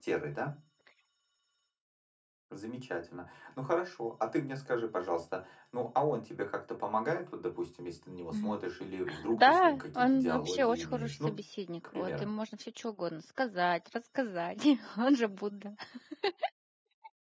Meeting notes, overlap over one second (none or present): present